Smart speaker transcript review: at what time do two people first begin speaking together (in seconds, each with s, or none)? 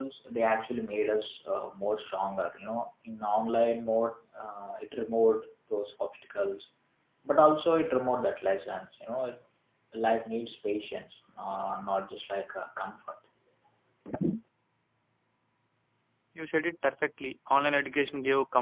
none